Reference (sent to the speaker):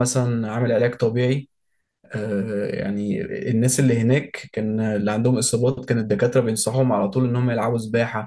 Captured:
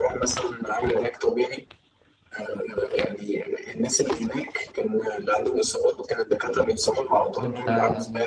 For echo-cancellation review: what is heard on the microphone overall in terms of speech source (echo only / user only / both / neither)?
both